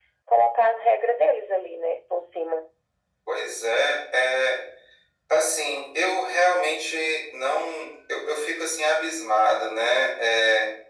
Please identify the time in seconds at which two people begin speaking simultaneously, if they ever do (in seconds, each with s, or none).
none